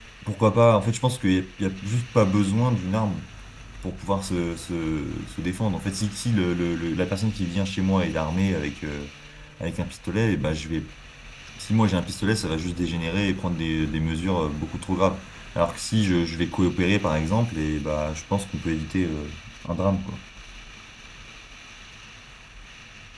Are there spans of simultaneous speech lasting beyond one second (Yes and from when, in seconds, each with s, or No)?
No